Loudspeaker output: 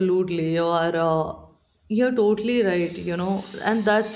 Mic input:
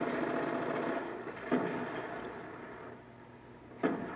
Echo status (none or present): none